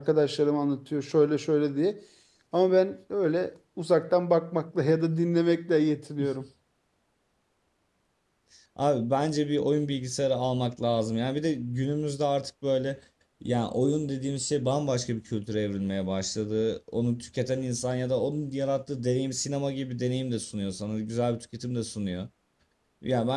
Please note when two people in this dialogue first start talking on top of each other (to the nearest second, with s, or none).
none